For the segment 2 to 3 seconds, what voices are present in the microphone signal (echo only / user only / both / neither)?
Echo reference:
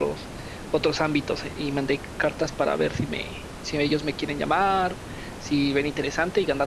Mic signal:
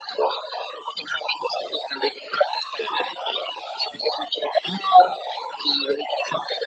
echo only